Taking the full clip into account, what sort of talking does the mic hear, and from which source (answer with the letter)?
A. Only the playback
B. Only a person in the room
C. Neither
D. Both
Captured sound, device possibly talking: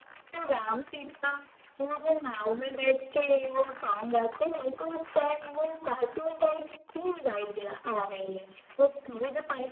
A